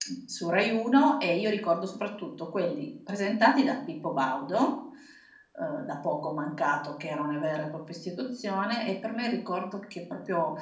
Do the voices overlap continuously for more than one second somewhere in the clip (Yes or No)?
No